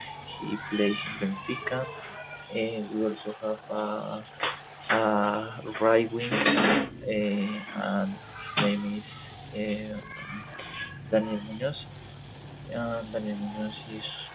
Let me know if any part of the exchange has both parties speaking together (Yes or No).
No